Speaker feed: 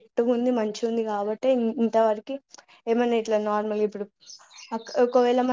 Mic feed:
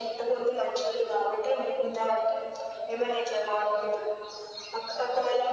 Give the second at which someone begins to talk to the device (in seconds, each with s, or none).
none